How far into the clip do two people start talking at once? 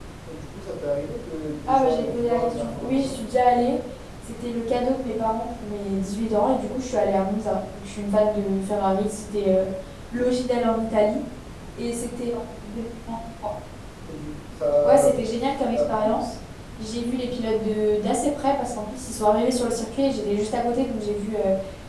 1.7 s

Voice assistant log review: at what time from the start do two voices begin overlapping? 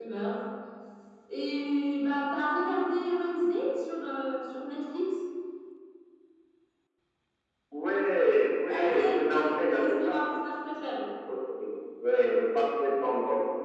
8.7 s

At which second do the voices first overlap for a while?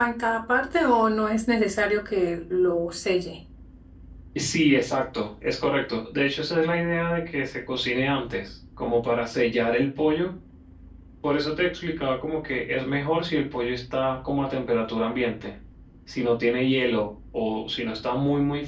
none

